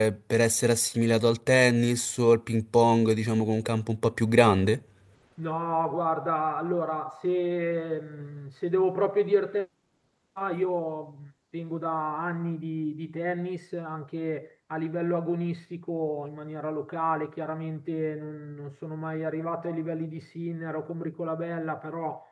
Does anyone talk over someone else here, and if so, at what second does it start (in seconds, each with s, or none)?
none